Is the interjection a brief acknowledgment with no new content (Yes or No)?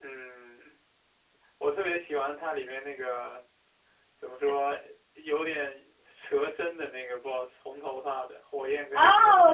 No